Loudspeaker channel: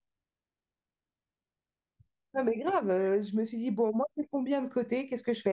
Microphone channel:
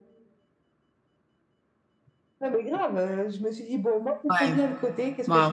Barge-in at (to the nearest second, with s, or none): 4 s